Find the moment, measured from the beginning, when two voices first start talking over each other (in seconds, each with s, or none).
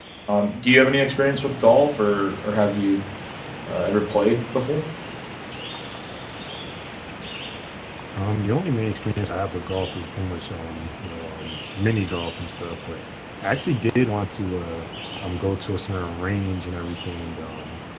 none